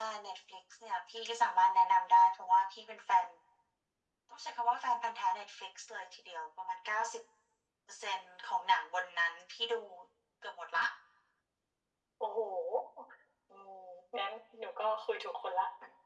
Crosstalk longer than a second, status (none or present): none